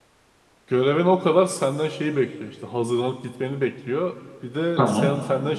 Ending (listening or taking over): listening